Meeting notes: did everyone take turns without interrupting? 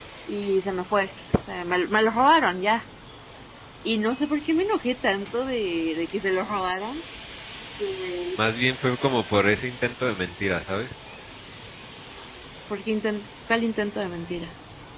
Yes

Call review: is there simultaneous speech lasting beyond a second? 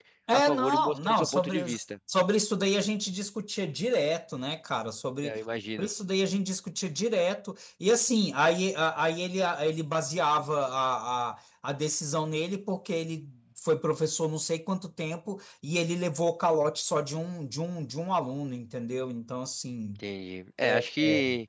Yes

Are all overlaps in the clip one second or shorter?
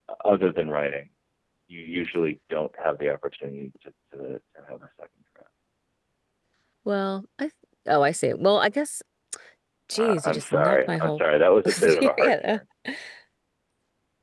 No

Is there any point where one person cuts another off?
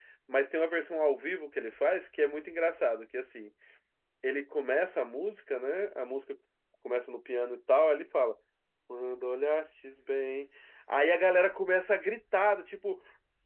No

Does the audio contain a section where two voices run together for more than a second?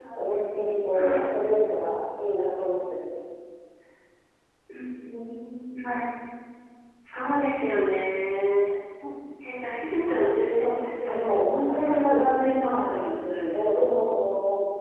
Yes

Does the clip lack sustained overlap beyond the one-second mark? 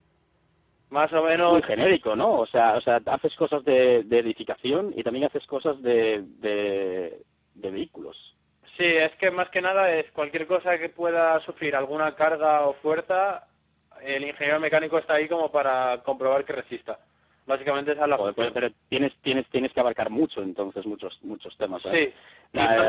Yes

